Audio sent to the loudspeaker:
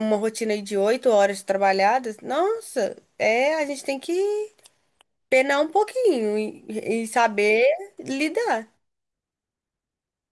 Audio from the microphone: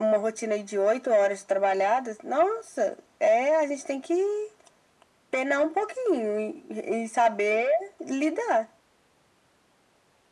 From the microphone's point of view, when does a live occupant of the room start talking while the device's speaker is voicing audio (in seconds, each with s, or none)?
none